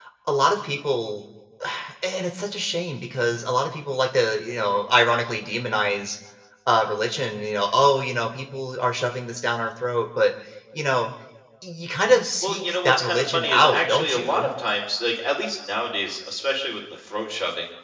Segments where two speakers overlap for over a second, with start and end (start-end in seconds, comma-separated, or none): 12.4-14.5